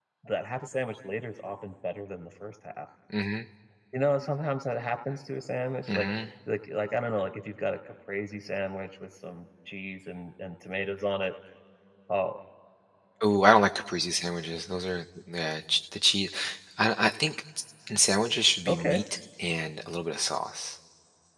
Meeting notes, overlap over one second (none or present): none